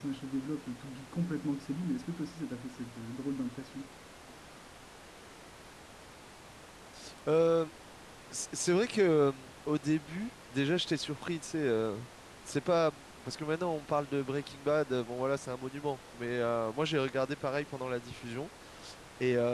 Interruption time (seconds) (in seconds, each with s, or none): none